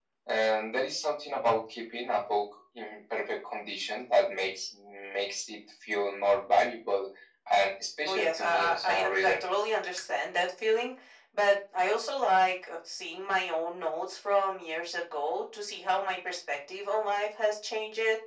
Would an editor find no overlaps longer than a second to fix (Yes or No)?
No